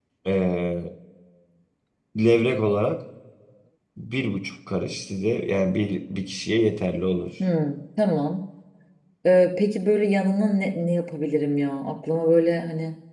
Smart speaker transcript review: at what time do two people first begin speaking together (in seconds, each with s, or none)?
none